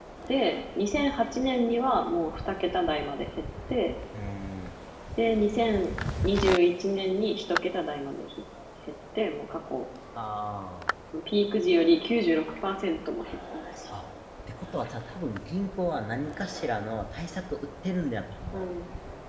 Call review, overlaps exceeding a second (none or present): none